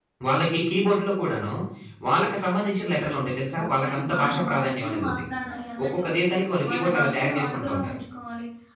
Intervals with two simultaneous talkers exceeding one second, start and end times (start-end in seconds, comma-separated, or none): 3.6-5.2, 6.7-8.0